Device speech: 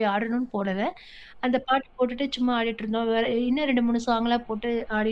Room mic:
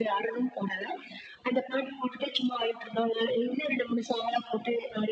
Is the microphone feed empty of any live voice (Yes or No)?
Yes